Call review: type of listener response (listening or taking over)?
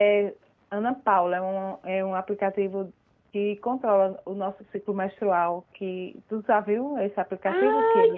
taking over